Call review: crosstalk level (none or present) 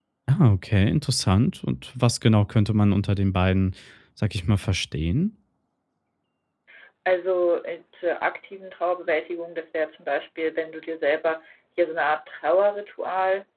none